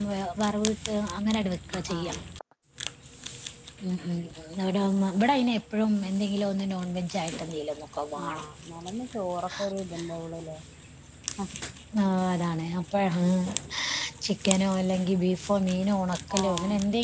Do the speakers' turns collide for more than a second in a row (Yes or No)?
No